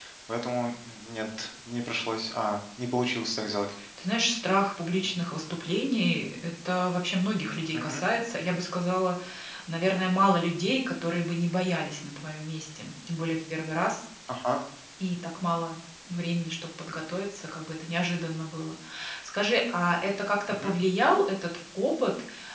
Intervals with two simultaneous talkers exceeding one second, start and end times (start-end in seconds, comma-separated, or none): none